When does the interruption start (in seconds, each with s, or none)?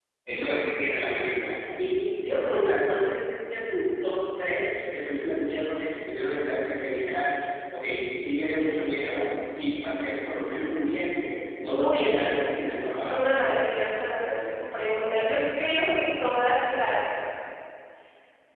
11.7 s